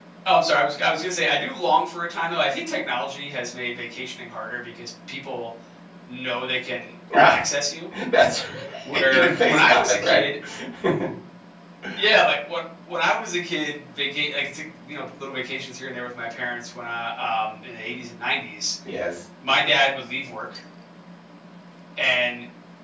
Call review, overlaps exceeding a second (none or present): present